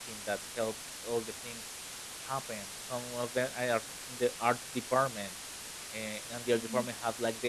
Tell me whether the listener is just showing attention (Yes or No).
Yes